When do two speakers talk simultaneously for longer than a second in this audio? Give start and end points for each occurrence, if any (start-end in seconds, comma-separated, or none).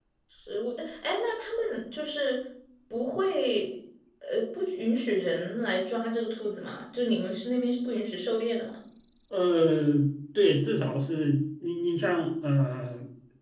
none